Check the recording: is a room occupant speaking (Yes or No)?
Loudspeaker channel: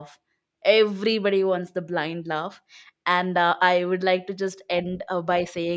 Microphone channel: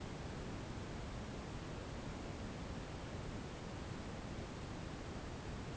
No